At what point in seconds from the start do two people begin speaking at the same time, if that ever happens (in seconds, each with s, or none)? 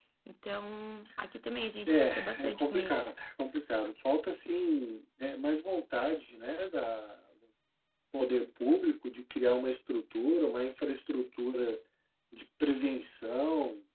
1.9 s